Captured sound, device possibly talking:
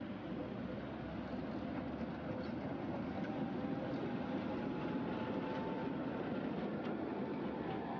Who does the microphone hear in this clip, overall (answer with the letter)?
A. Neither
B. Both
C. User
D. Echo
A